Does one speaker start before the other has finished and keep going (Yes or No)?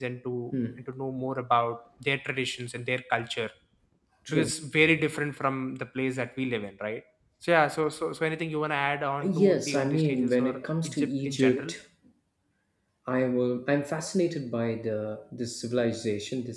Yes